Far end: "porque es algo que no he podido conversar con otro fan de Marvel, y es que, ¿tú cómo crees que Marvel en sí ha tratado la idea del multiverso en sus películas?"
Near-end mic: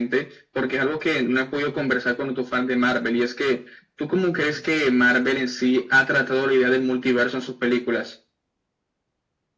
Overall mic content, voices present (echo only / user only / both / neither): echo only